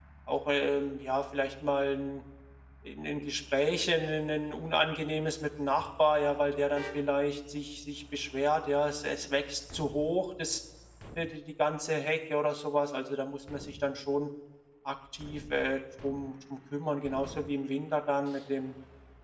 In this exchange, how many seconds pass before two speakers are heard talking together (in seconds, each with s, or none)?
none